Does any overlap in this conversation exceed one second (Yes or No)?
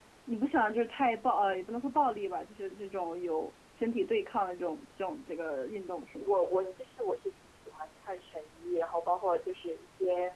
No